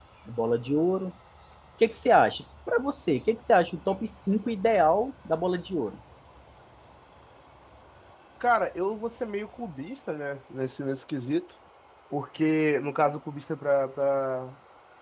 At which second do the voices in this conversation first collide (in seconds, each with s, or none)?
none